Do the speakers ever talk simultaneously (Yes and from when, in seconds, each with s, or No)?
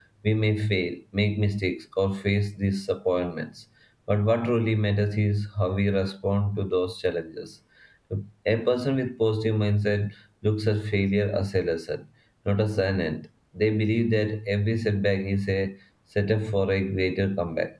No